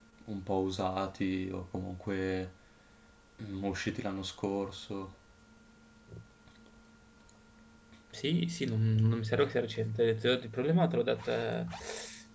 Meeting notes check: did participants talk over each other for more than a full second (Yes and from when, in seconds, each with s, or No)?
No